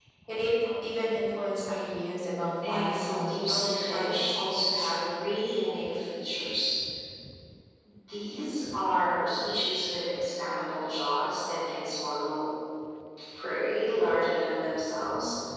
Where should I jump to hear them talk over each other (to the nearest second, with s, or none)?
3 s